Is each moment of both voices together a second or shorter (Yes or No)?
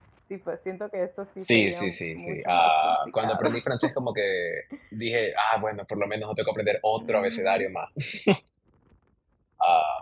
No